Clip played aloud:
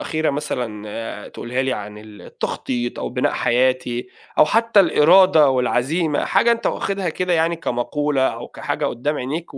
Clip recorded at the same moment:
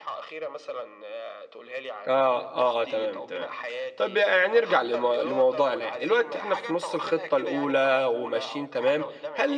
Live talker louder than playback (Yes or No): Yes